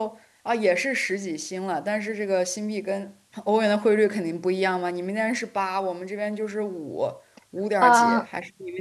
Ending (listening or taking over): listening